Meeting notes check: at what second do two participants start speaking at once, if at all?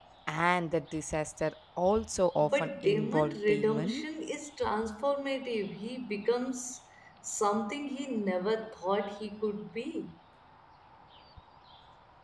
2.4 s

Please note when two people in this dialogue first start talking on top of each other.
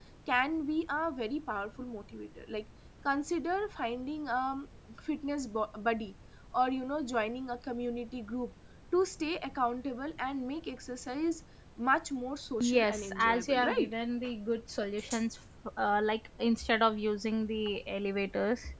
12.6 s

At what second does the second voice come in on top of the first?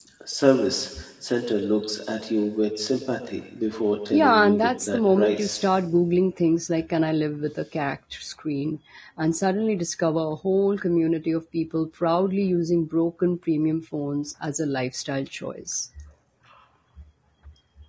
4.1 s

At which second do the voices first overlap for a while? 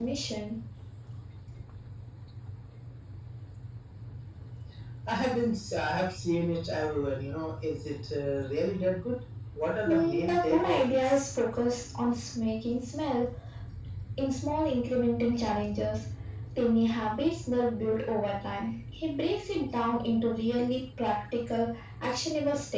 9.9 s

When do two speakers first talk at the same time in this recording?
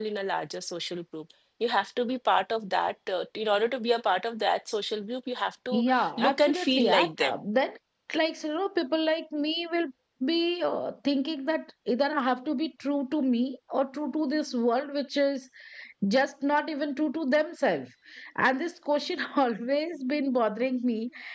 5.7 s

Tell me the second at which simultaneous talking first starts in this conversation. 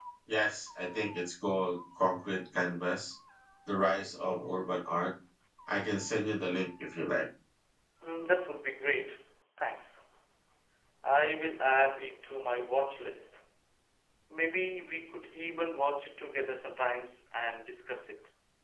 none

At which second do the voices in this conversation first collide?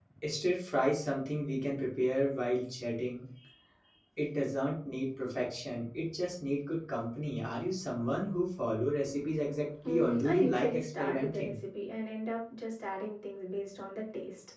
9.8 s

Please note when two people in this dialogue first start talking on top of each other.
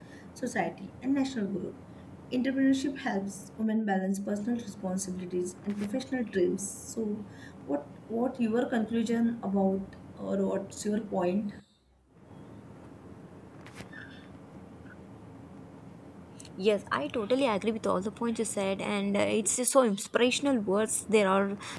none

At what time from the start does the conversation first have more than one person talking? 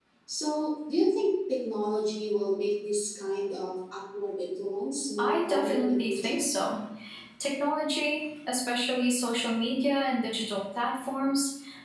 5.2 s

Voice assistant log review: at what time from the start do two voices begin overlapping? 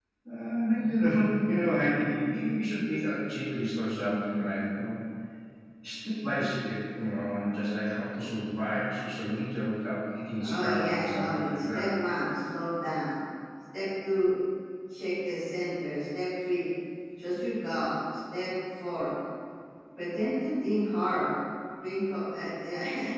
10.4 s

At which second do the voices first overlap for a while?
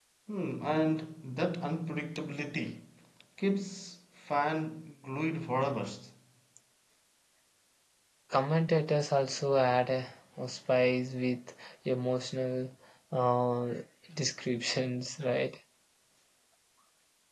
none

